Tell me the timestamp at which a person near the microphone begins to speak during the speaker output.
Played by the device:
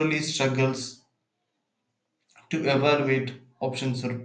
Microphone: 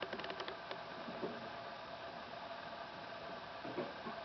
none

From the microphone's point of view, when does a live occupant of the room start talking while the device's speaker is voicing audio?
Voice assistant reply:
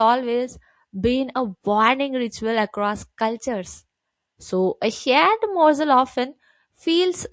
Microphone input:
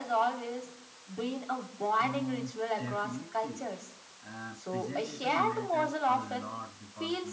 2.0 s

